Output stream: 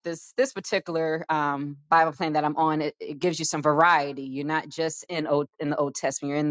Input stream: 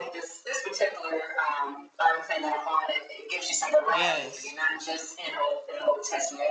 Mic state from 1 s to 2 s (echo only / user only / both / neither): echo only